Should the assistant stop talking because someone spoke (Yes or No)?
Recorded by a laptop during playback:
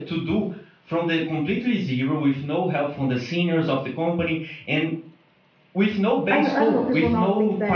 Yes